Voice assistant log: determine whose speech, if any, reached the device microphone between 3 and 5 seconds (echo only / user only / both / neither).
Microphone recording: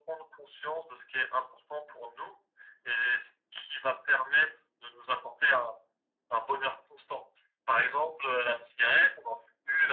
echo only